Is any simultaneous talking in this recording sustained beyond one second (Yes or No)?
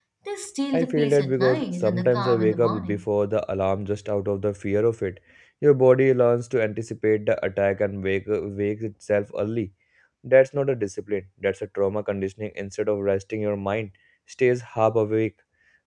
Yes